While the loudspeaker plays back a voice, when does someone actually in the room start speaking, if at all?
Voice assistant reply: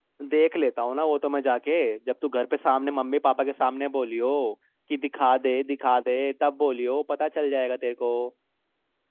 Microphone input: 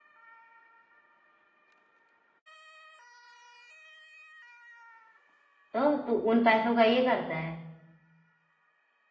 6 s

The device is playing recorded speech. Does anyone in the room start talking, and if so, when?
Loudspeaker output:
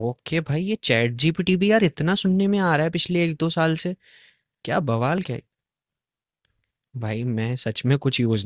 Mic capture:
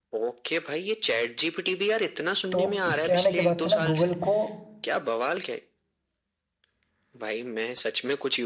3 s

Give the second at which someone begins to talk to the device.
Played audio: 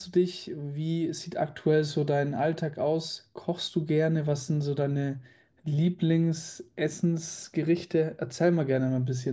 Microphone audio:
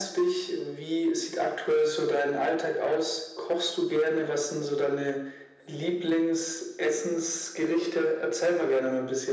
none

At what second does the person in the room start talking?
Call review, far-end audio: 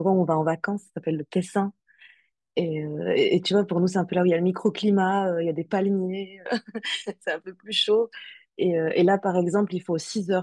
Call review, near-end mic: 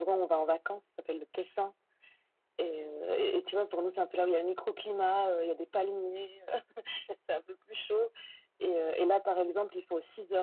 none

